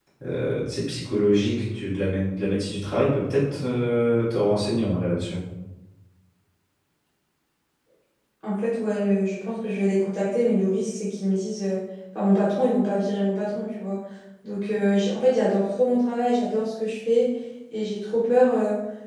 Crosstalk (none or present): none